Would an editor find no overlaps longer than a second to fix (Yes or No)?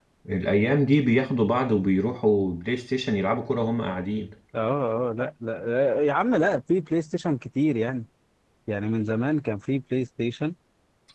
Yes